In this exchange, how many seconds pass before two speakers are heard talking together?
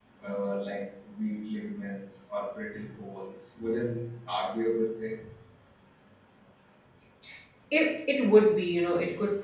none

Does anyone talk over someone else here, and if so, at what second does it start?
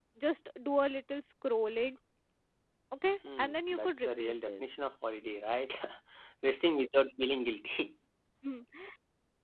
3.4 s

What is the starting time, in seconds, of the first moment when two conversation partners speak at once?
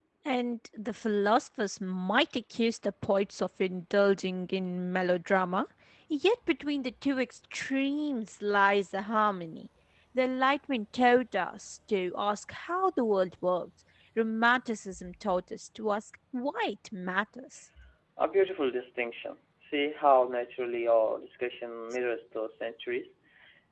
none

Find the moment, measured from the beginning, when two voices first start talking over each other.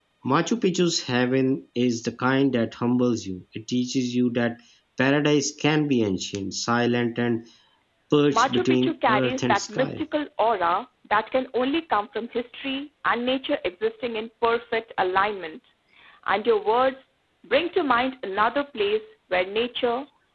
8.3 s

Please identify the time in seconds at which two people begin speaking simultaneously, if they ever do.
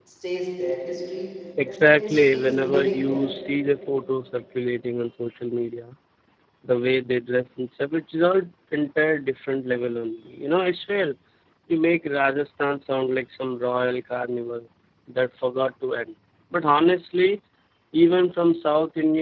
1.6 s

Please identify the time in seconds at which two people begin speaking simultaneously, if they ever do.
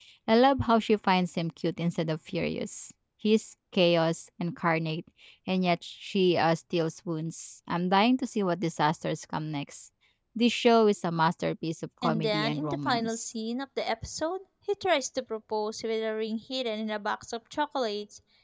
12.0 s

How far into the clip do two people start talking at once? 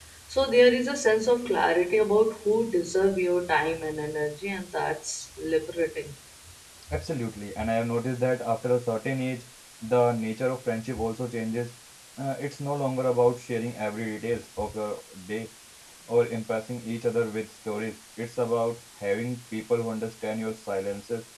none

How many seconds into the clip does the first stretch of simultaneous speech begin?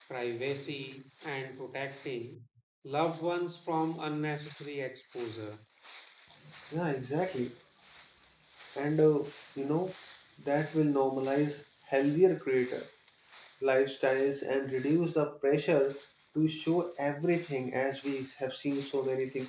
none

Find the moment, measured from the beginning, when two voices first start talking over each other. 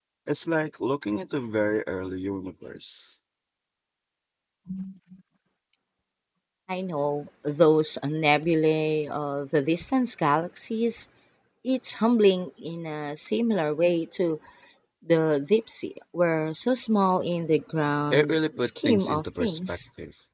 18.1 s

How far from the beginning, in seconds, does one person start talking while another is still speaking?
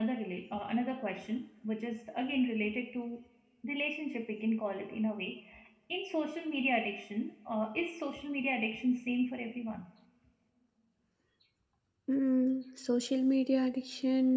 none

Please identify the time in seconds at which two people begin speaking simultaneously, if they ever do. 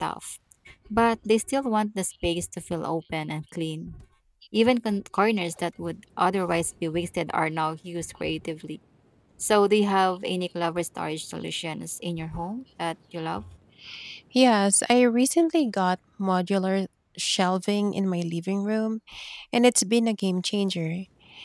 none

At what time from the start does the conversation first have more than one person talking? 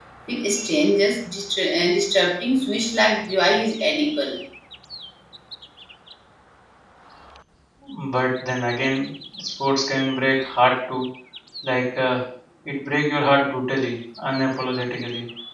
none

